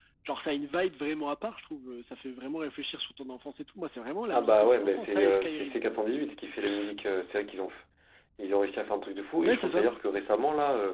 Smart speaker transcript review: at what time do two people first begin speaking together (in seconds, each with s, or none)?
4.3 s